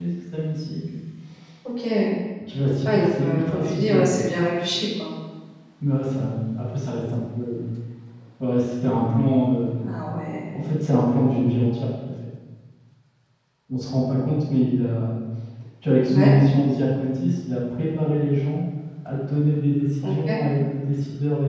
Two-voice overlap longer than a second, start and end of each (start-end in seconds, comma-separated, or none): 2.9-4.1